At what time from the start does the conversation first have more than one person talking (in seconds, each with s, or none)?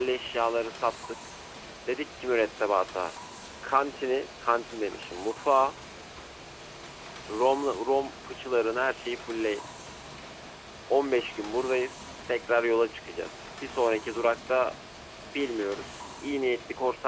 none